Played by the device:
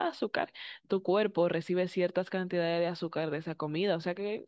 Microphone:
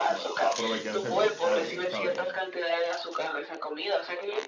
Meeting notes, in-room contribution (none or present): present